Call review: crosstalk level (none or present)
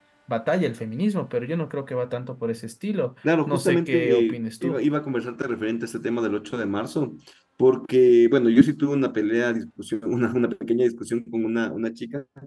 present